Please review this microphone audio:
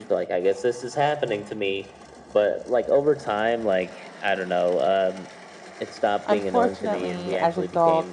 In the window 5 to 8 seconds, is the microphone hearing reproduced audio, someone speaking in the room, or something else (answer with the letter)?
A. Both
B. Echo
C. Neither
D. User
A